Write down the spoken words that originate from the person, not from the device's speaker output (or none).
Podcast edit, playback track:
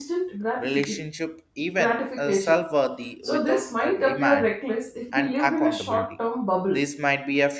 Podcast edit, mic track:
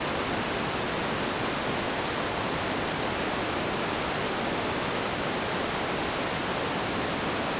none